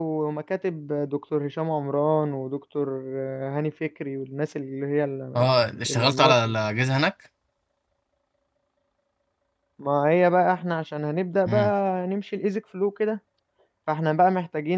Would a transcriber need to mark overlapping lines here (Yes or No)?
Yes